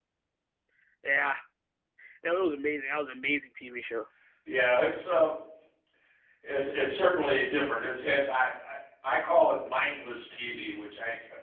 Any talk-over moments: No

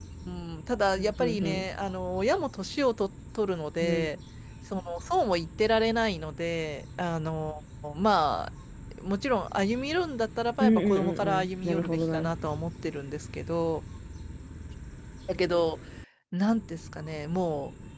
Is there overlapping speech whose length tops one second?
Yes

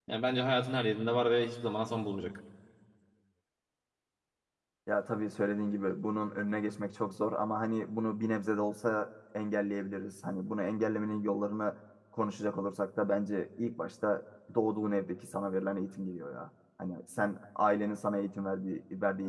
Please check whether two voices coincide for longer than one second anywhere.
No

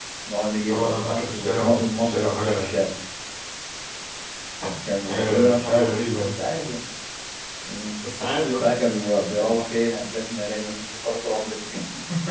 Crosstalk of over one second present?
Yes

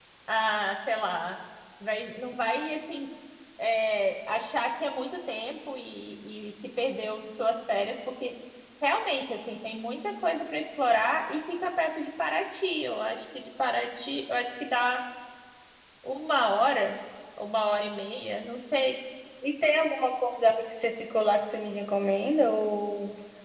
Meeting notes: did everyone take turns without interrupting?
Yes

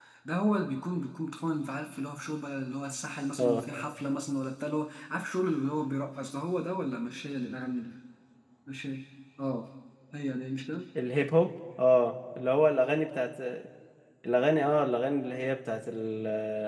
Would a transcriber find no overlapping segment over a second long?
Yes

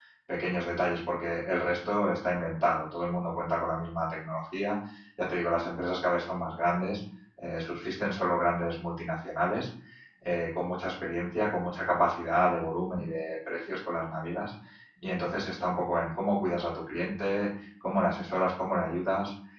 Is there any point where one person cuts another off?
No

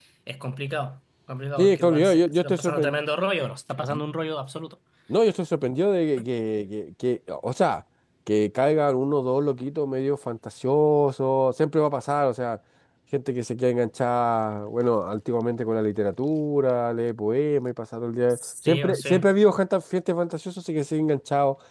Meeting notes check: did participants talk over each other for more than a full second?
Yes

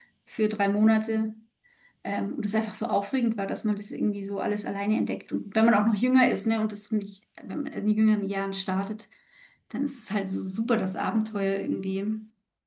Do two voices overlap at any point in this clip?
No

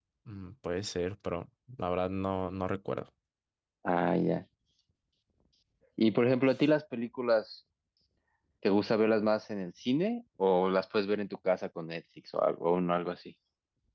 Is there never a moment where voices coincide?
Yes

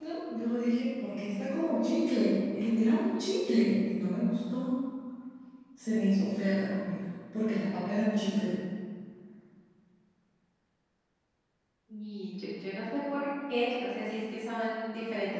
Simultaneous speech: No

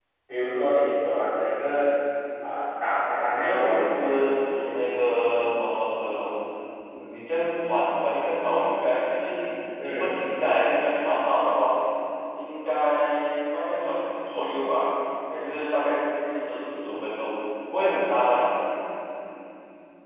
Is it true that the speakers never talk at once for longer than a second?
No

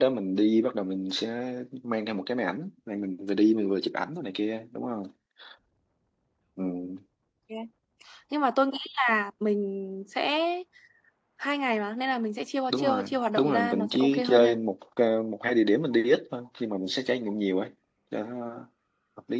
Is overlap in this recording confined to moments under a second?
No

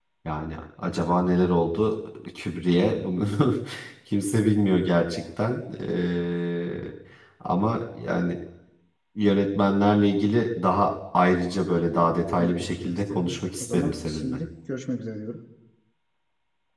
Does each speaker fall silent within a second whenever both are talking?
No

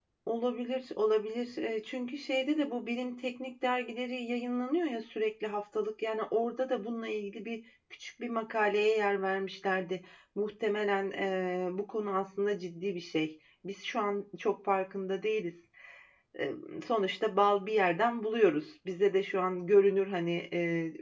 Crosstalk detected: No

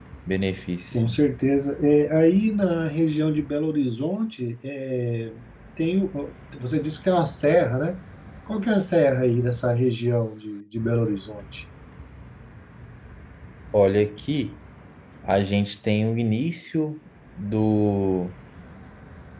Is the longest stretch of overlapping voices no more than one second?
Yes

